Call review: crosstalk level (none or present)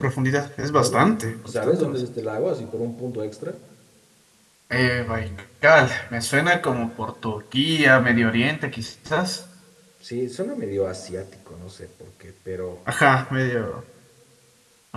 present